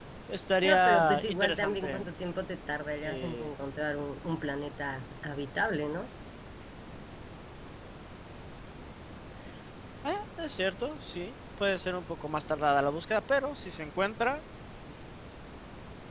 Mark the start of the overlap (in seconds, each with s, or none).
0.6 s